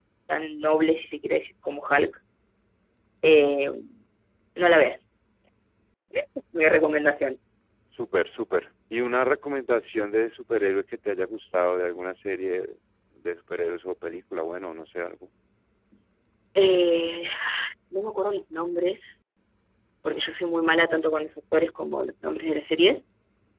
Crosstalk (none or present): none